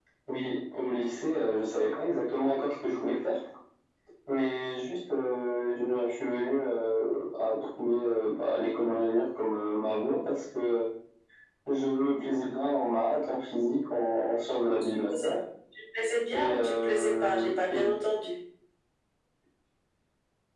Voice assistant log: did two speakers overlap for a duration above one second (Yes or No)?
Yes